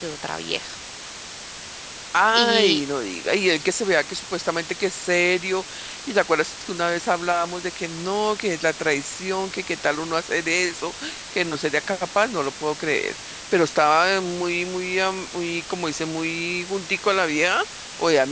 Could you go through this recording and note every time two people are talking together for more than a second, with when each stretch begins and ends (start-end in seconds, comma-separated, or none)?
none